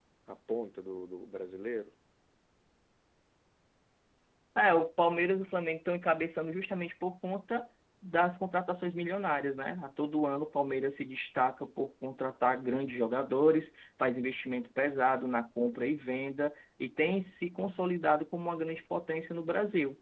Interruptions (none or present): none